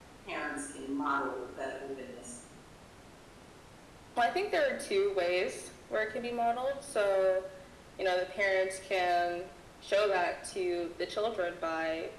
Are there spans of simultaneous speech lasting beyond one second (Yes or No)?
No